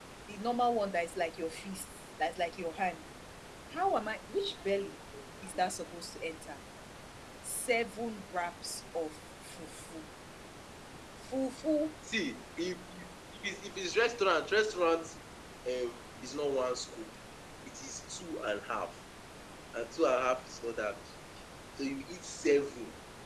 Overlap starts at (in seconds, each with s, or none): none